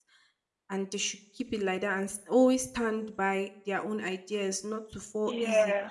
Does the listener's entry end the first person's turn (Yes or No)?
No